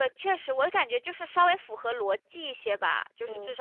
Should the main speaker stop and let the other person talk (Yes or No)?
No